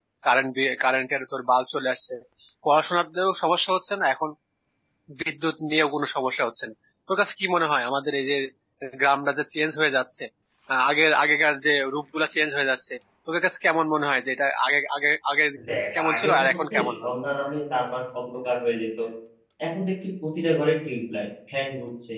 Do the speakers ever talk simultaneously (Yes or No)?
Yes